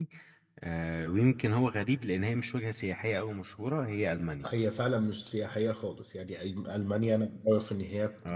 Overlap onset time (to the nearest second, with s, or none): none